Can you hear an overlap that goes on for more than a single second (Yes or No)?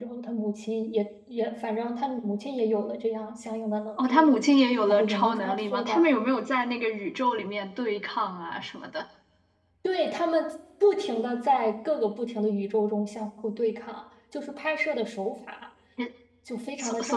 Yes